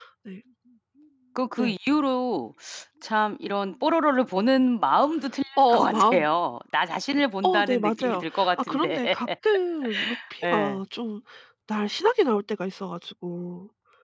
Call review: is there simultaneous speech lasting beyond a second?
Yes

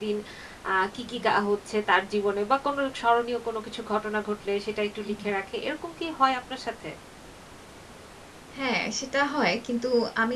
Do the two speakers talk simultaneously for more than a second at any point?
No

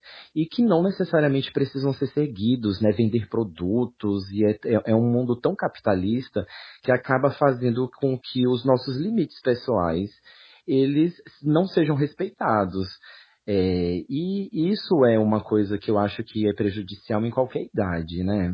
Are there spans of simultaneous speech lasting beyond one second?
No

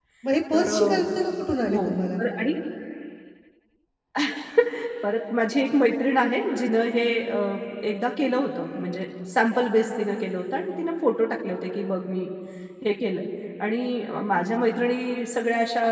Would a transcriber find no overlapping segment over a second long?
Yes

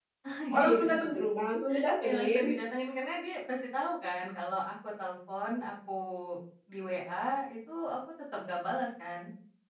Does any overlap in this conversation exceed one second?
No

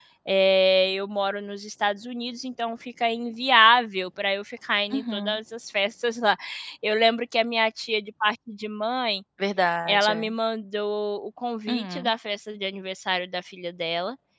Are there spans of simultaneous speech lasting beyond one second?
No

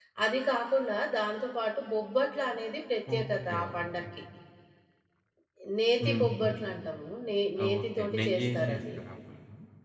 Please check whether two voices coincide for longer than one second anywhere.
Yes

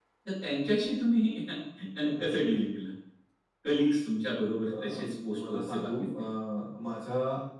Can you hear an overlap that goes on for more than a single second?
Yes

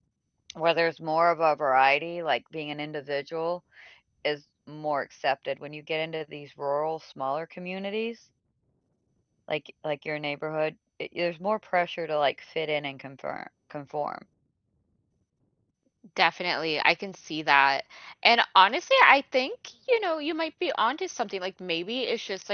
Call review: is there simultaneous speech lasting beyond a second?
No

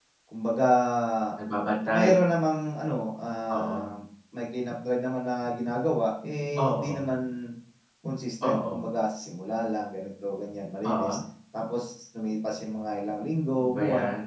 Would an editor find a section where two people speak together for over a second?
No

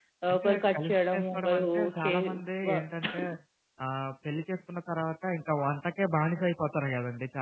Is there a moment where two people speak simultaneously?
Yes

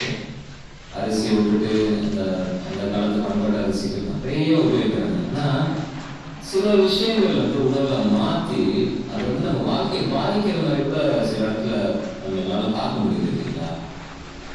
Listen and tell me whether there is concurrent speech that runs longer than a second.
No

